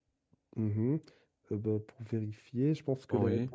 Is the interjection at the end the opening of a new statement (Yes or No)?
No